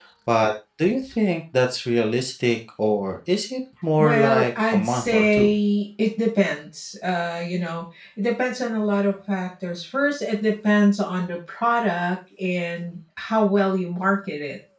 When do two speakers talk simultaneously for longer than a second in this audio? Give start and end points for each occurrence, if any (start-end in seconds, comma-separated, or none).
4.0-5.5